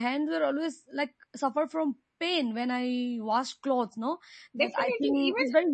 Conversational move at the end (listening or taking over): taking over